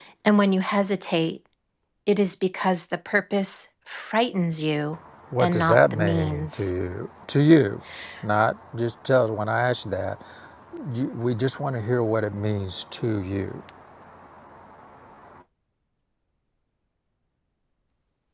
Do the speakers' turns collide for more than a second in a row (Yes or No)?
Yes